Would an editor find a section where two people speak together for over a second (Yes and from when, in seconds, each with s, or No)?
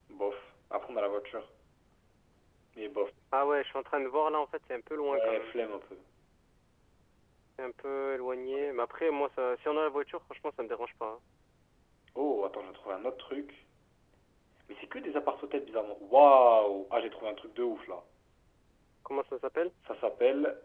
No